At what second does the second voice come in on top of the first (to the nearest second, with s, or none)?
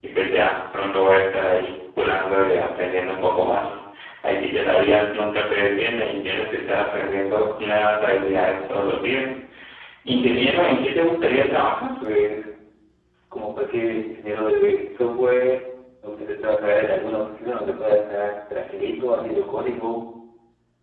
none